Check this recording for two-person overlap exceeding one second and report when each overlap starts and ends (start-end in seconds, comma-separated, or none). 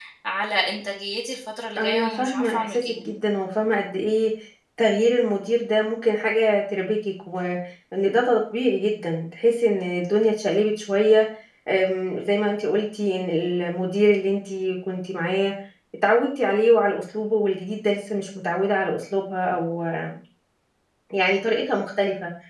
1.8-3.0